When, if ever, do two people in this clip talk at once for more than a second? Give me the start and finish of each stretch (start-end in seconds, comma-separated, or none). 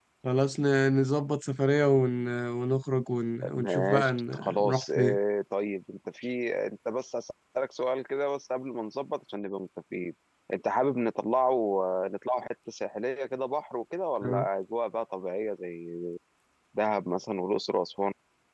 3.6-5.2